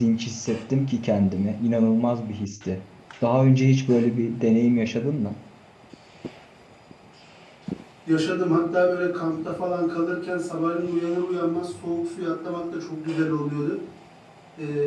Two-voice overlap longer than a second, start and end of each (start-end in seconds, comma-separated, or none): none